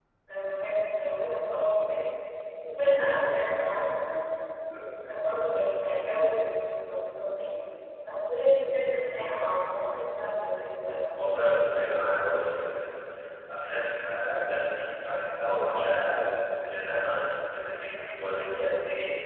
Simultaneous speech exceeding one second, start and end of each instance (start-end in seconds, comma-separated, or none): none